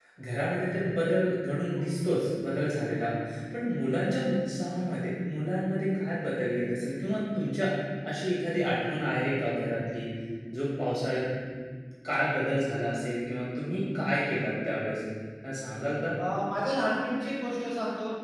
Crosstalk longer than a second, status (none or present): none